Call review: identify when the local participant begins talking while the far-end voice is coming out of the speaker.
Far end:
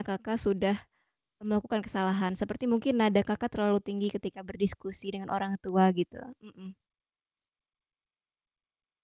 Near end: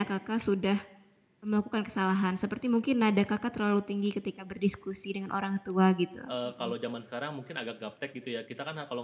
6.3 s

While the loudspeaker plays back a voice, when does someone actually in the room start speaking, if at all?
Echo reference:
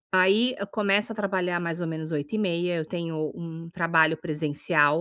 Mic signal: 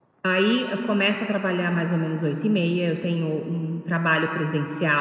none

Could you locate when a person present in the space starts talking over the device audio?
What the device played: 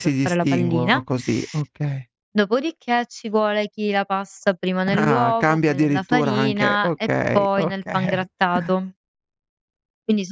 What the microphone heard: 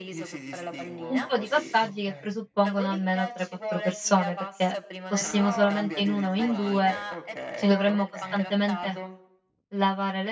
1.1 s

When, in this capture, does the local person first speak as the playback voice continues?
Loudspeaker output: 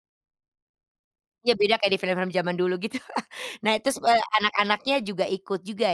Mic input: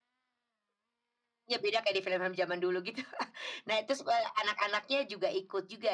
none

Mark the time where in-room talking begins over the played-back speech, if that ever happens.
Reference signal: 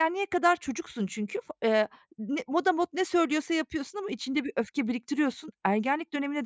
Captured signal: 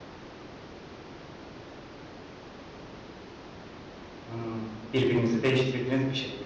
4.3 s

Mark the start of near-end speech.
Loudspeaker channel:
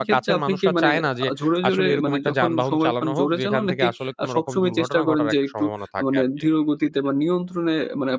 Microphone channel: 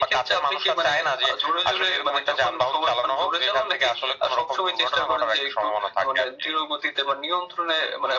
none

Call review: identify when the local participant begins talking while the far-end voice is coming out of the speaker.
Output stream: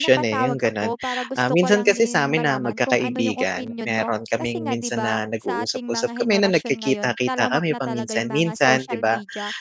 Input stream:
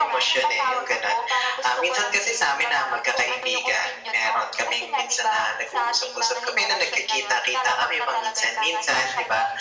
none

